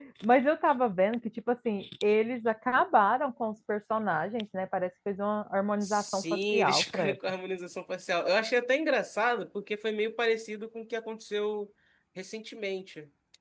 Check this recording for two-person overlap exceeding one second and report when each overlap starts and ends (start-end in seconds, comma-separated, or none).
5.8-7.2